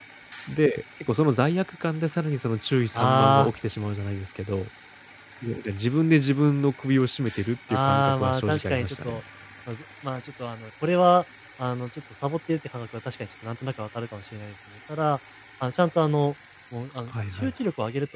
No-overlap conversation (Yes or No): No